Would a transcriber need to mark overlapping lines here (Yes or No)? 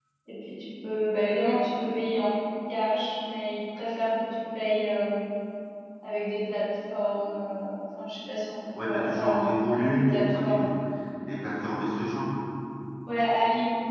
Yes